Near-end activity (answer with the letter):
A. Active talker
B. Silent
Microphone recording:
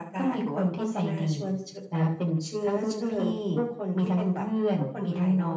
B